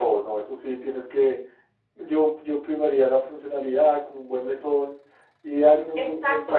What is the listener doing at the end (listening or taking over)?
taking over